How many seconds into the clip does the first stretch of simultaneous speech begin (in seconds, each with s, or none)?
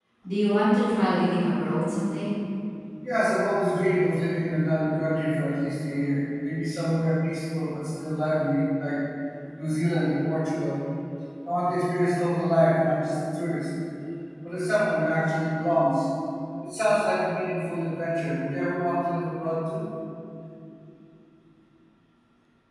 none